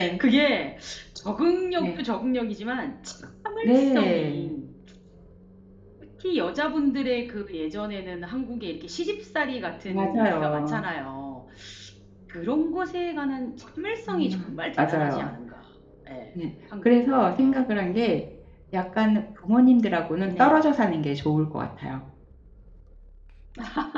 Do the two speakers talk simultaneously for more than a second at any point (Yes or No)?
Yes